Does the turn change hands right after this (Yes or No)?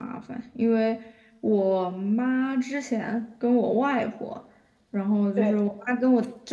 No